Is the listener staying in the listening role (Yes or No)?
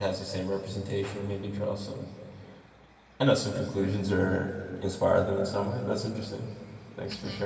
No